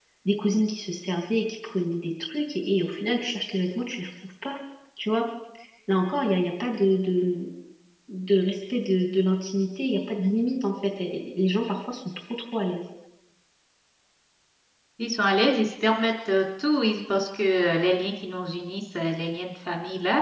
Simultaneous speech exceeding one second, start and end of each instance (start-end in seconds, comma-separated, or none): none